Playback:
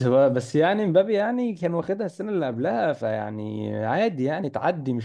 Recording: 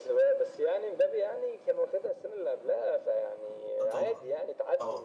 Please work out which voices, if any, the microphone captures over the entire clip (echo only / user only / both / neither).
both